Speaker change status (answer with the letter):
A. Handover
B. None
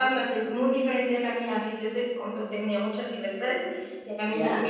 B